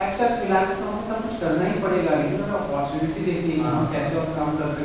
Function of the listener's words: listening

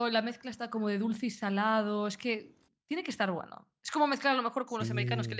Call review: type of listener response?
listening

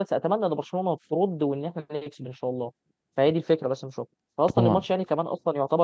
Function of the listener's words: listening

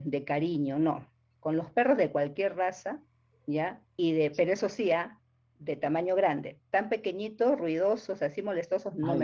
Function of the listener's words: taking over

